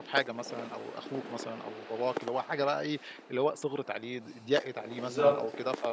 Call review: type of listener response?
listening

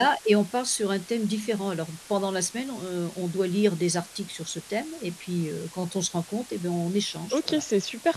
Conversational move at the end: taking over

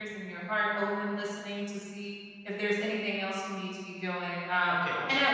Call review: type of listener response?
listening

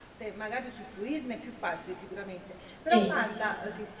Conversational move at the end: listening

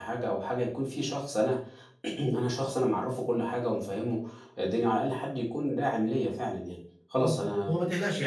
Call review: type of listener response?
taking over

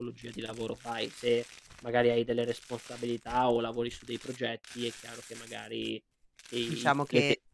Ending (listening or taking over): taking over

